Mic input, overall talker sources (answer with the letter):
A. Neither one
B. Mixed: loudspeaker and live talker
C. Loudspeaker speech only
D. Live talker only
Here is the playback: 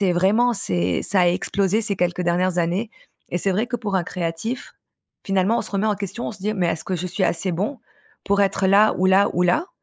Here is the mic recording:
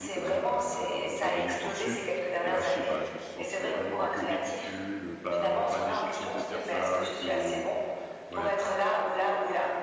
B